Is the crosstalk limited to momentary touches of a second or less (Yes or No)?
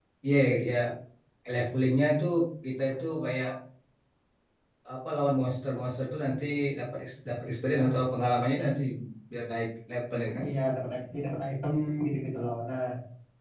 Yes